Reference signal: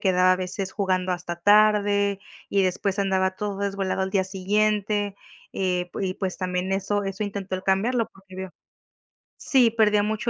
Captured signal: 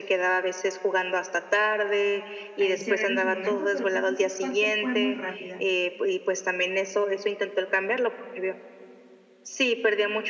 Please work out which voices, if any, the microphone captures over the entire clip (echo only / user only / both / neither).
both